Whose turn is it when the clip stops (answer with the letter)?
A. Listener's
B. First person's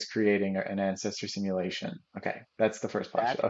A